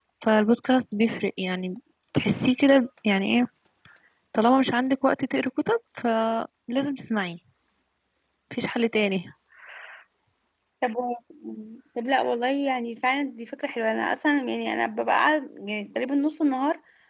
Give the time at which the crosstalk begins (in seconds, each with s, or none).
none